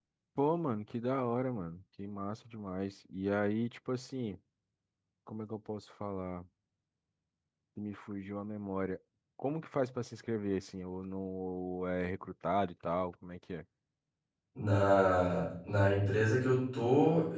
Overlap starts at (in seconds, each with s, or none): none